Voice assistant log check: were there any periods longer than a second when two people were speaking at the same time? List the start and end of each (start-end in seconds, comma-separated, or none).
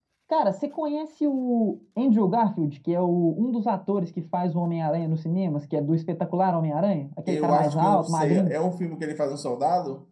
7.3-8.6